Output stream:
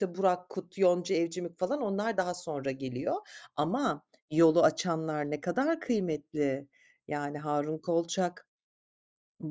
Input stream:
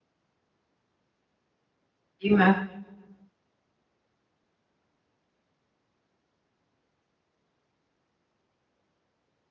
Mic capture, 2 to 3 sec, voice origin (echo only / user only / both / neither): user only